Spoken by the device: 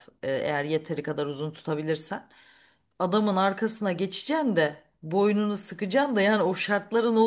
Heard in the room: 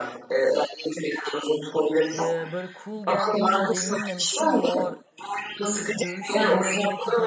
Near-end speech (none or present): present